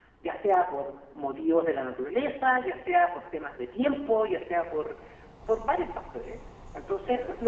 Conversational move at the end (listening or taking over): listening